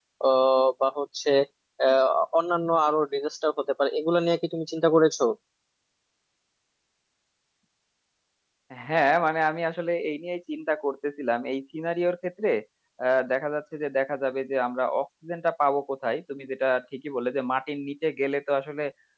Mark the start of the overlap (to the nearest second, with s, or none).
none